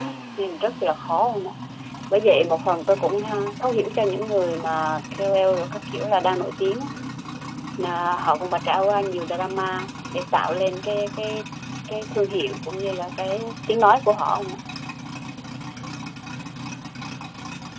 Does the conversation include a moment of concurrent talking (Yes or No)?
No